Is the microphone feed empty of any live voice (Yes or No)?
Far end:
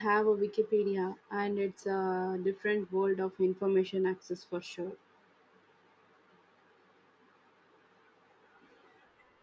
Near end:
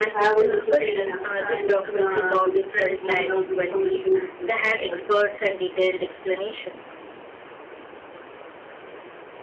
No